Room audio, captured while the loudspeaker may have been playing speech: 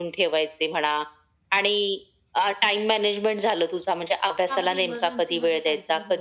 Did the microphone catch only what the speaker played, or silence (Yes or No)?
No